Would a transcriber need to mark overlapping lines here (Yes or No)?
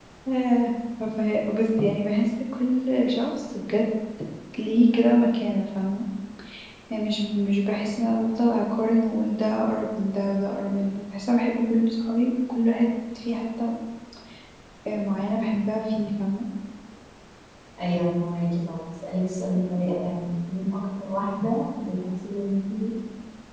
No